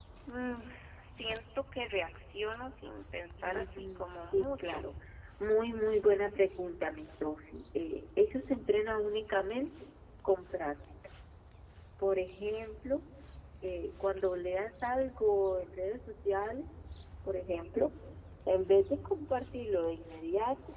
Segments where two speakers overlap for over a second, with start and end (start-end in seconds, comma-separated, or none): 3.4-4.8